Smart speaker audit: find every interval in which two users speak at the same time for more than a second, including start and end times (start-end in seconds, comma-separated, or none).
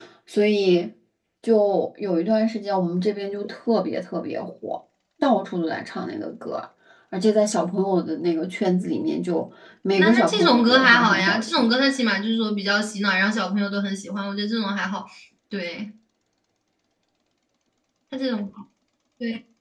10.0-11.7